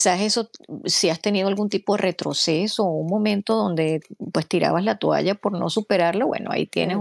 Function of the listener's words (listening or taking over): listening